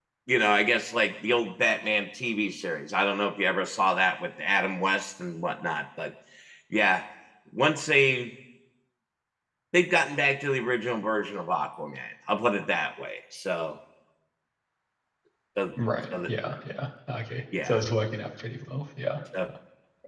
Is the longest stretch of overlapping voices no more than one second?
Yes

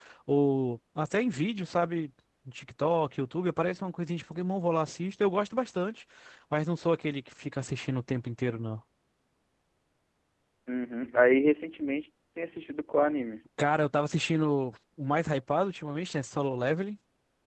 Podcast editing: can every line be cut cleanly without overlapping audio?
Yes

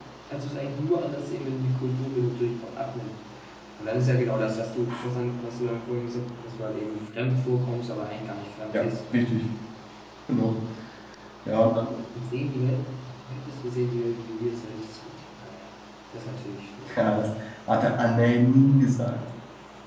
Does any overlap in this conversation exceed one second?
No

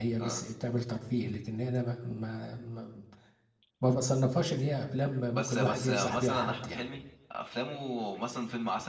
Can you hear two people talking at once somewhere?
Yes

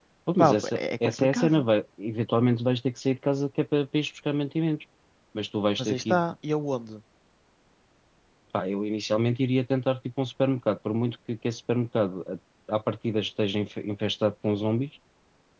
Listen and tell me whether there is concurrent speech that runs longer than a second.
Yes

